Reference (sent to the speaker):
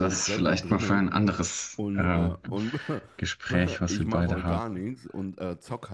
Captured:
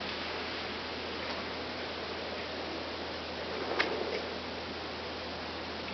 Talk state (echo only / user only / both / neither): neither